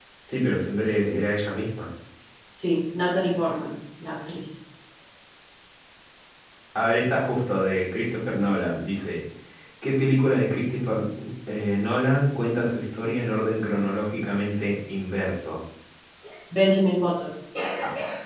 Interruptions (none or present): none